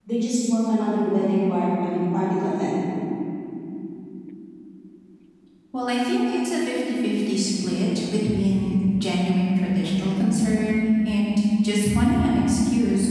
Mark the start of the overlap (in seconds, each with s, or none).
none